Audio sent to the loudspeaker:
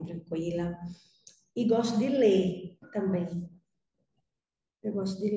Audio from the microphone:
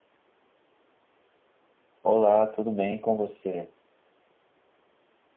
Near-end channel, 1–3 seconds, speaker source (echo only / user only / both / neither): user only